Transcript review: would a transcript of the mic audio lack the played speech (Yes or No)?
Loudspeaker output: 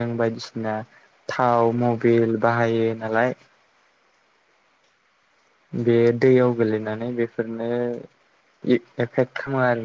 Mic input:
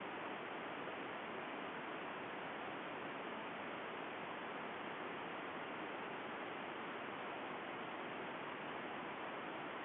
Yes